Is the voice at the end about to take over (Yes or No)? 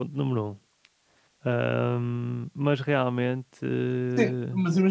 Yes